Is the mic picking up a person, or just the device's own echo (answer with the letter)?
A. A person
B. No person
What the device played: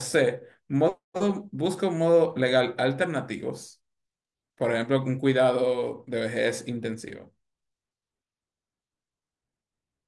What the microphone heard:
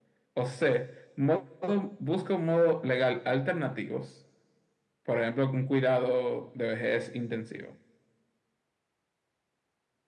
B